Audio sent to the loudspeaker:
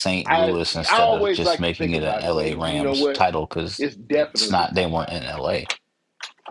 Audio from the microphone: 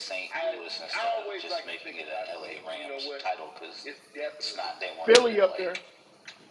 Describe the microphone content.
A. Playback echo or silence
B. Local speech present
B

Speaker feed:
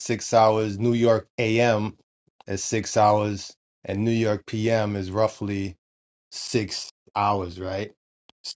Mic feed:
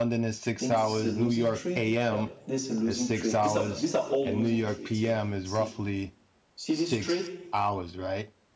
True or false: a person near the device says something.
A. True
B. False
A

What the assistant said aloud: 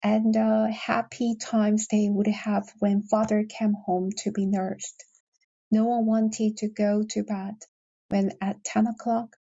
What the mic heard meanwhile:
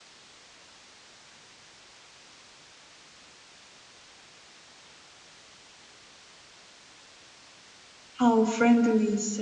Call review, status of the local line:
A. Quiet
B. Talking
B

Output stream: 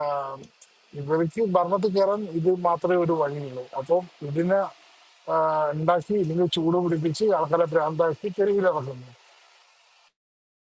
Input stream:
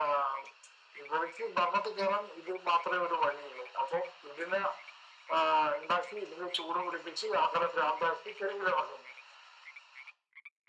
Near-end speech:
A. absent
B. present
A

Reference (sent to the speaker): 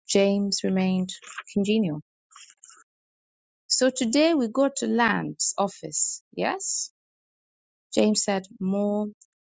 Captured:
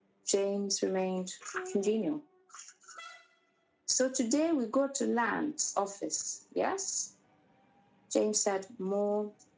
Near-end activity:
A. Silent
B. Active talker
A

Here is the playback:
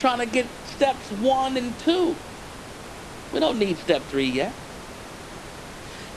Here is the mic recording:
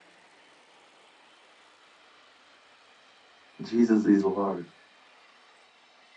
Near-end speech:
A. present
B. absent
A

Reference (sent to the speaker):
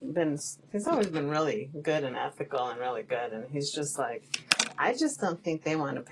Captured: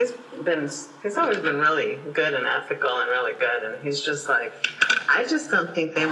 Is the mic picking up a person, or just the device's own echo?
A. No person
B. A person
A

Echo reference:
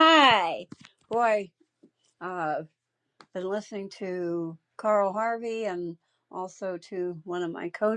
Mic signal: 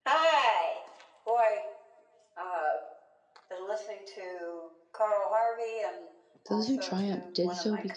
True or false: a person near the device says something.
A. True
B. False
A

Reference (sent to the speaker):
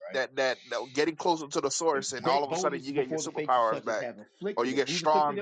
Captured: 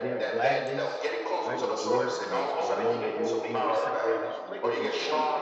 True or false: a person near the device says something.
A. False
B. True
B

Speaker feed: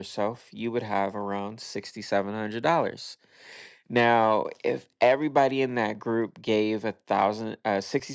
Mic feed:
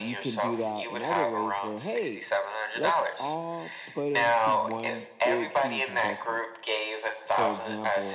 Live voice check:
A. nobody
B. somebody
B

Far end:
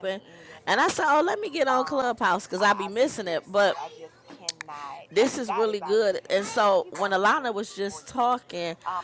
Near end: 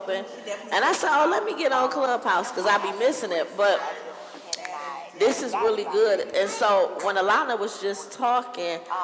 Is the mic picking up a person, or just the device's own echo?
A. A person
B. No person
A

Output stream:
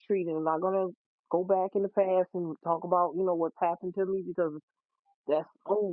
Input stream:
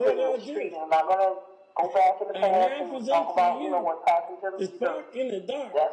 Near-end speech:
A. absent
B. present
B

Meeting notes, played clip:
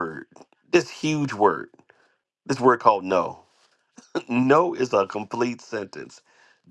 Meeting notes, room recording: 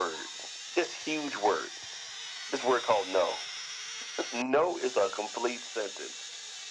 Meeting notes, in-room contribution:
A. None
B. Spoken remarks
A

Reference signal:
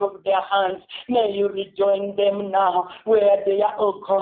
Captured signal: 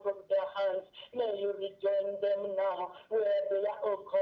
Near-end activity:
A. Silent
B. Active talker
A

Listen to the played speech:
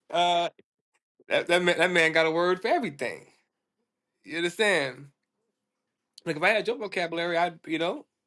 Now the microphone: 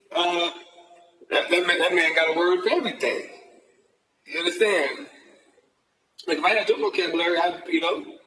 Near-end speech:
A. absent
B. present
A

